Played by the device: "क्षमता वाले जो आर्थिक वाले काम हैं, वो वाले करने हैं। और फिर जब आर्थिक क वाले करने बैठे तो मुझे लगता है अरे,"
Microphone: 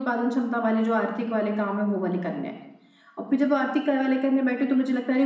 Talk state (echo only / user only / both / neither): echo only